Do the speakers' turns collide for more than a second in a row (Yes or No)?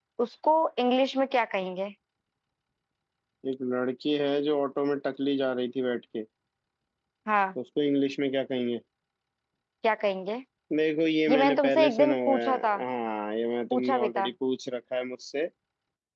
Yes